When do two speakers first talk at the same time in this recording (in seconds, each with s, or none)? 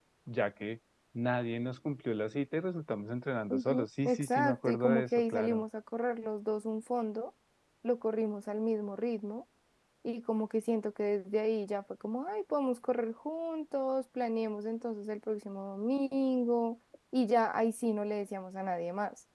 3.5 s